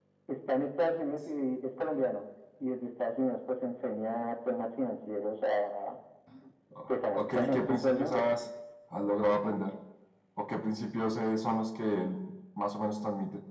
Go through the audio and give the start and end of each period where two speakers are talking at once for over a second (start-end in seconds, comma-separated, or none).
7.1-8.4